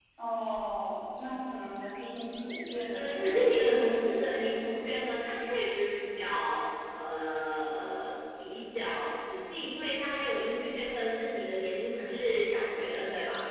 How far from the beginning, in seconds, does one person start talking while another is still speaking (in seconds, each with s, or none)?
2.9 s